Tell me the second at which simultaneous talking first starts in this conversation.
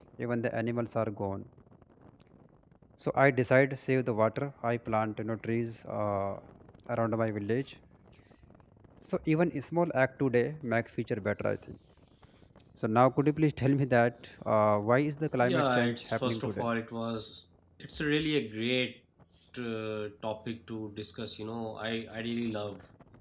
15 s

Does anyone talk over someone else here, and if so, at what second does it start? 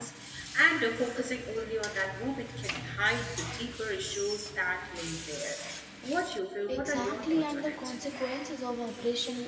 7 s

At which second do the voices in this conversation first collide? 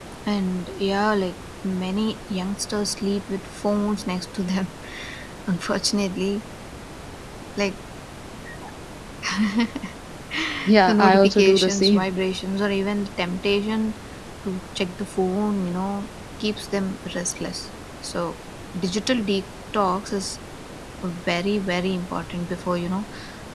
11 s

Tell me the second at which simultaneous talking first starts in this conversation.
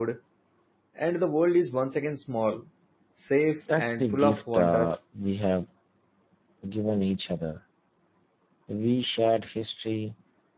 4 s

